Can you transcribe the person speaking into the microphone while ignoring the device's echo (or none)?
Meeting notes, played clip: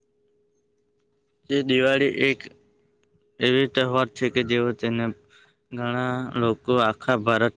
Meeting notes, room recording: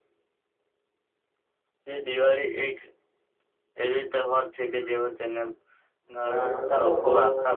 શરૂ થતા લોકો